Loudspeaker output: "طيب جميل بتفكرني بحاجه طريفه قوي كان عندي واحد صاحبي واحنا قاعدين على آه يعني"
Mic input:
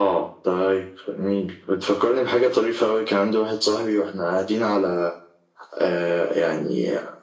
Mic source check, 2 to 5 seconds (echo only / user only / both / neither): echo only